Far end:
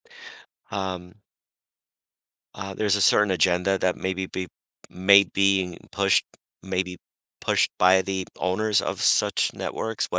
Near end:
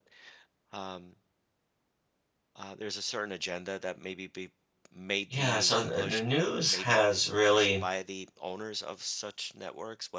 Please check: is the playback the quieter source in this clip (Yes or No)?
Yes